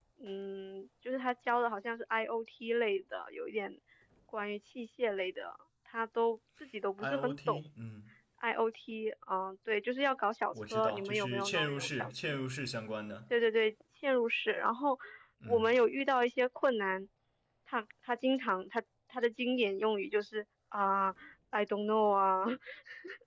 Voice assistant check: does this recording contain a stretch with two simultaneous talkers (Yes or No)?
Yes